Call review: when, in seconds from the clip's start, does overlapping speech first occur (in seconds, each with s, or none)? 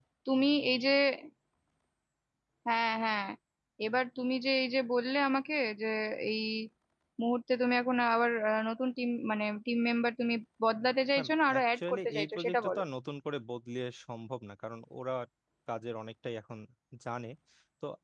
11.2 s